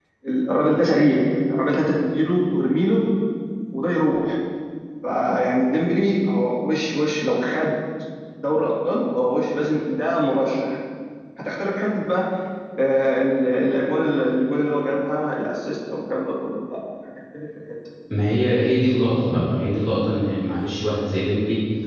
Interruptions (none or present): none